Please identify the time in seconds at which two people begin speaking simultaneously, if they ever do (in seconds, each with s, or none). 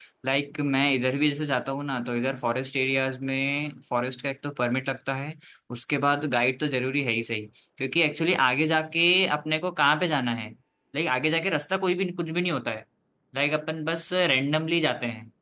none